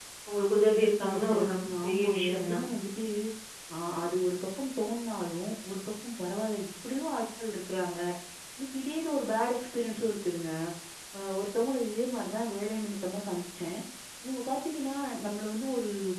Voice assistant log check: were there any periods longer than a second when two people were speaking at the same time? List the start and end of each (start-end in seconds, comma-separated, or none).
0.7-2.6